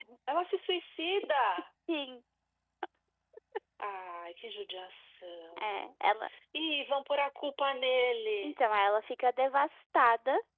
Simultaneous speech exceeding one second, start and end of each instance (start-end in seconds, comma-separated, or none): none